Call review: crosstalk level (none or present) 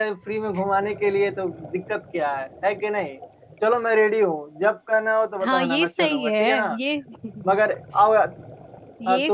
present